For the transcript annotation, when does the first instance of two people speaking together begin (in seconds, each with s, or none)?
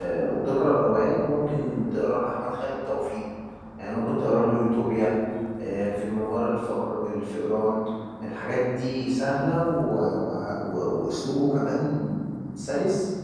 none